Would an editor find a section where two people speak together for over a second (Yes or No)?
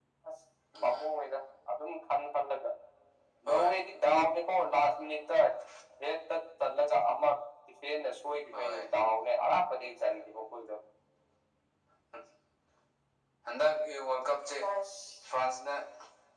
No